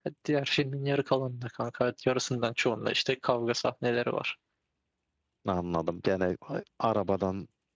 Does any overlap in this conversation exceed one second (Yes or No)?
No